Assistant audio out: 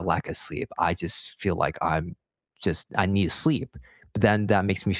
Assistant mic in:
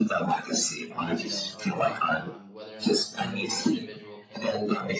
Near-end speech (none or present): present